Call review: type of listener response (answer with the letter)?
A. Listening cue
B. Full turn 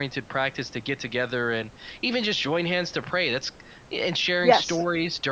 A